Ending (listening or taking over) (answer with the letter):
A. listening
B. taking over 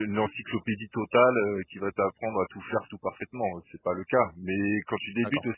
A